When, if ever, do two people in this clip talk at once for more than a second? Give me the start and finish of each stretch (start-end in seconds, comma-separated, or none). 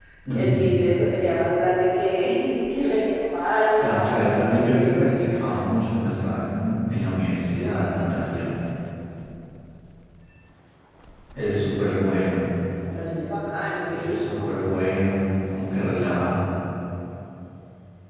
3.8-5.3